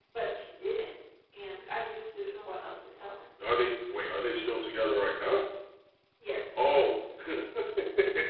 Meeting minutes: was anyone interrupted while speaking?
No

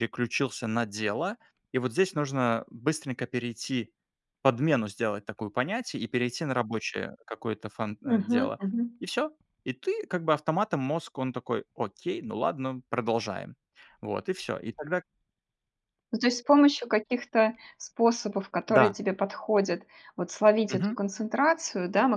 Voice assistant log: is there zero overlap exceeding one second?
Yes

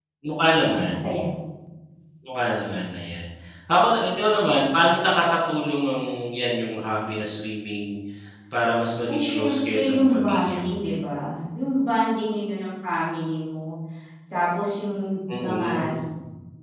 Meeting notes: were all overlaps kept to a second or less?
No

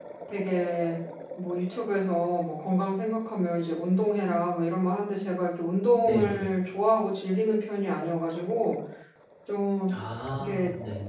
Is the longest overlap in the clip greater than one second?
No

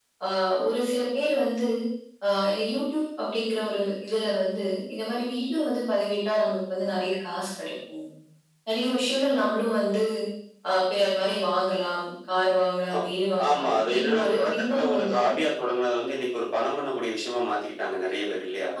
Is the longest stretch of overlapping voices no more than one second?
No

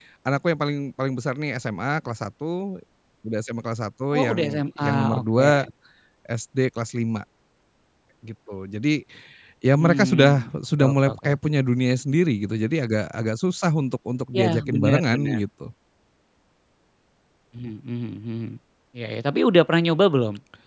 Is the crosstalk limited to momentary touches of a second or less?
No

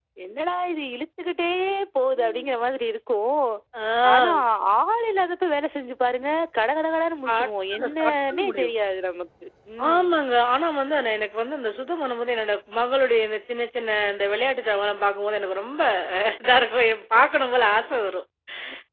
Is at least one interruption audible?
Yes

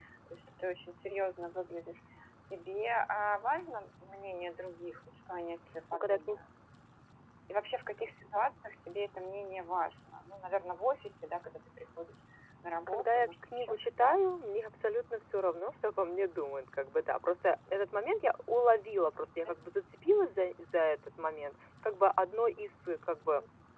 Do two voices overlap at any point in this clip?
Yes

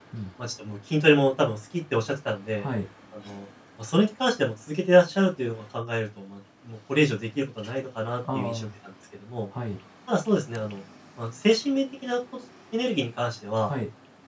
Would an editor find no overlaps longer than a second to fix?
Yes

